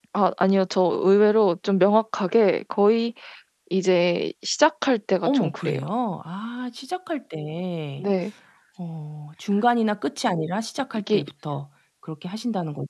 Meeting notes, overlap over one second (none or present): none